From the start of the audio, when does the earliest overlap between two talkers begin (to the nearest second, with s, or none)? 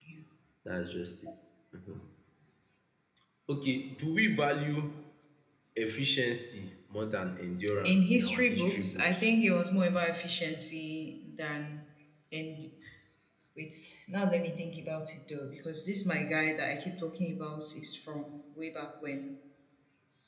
8 s